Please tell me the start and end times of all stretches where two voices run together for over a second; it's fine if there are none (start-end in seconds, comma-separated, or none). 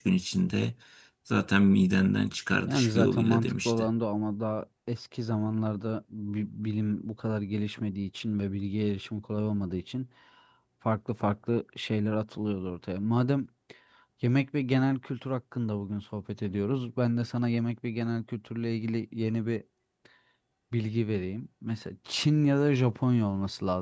2.7-3.9